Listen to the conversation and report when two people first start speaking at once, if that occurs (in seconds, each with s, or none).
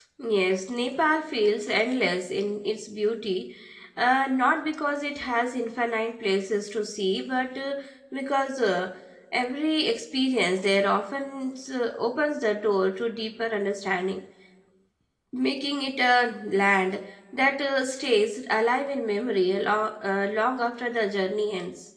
none